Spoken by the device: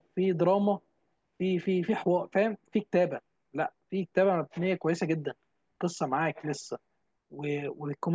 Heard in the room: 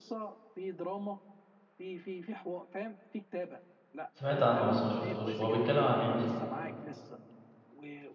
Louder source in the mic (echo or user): user